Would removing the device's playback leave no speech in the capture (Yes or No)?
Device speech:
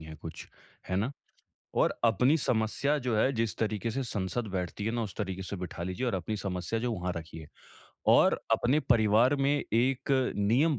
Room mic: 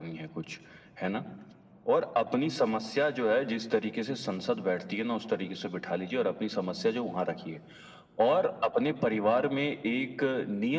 Yes